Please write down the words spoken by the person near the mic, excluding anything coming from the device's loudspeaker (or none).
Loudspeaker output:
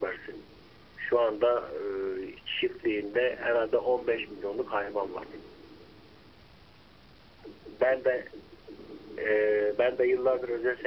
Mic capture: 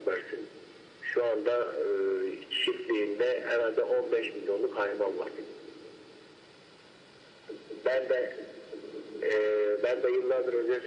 none